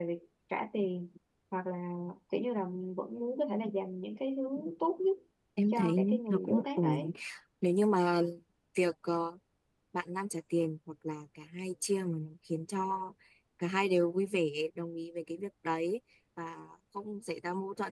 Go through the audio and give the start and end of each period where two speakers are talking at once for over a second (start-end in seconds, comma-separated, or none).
5.7-7.1